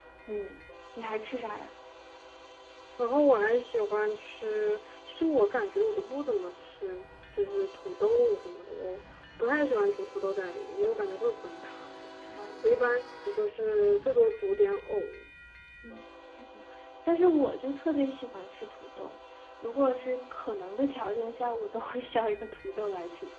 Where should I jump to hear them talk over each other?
none

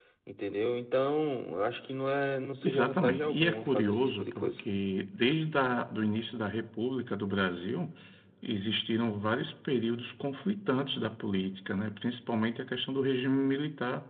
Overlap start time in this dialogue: 2.6 s

